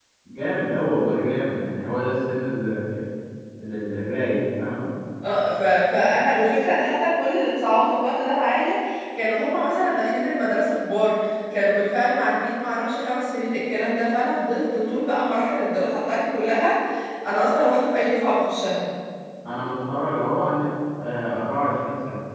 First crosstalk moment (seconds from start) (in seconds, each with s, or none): none